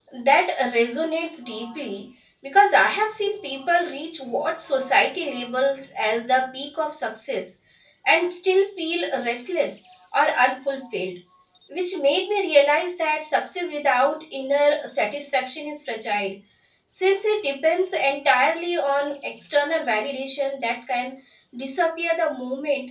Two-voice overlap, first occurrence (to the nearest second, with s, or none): none